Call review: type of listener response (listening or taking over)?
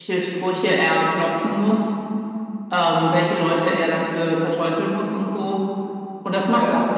listening